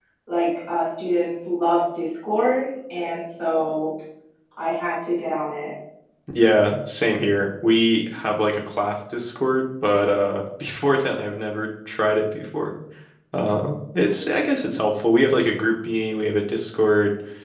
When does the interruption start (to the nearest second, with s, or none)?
none